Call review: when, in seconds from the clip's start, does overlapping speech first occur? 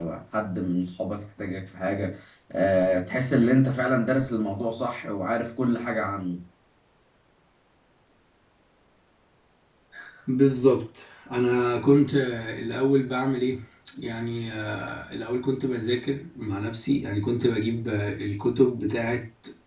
none

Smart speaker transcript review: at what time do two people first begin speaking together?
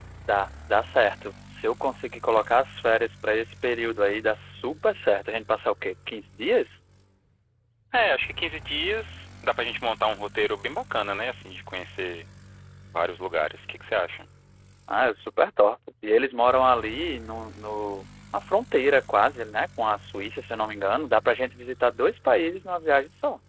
none

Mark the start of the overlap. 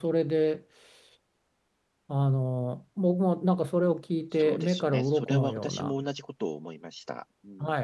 4.3 s

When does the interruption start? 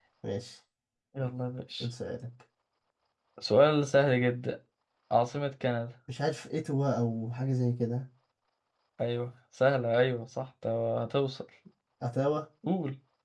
none

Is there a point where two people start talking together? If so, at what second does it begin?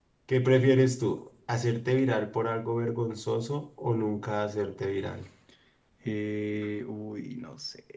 none

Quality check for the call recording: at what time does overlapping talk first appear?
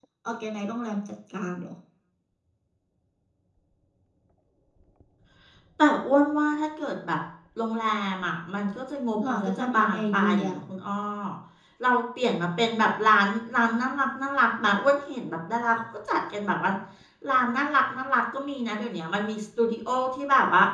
9.2 s

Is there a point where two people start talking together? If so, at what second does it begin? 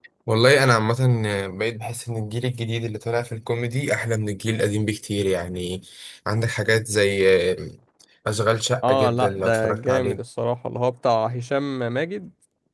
8.8 s

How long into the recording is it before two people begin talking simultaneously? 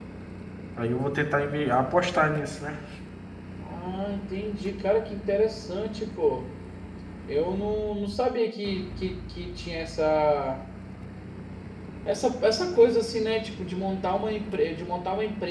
none

